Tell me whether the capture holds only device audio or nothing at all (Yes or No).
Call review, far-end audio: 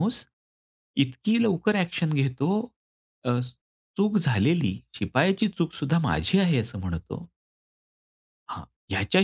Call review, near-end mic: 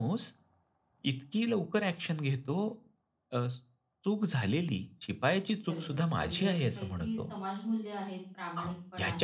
No